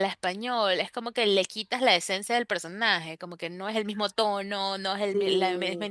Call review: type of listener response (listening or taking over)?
listening